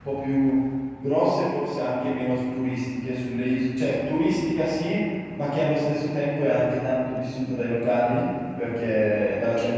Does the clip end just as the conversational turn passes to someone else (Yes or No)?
No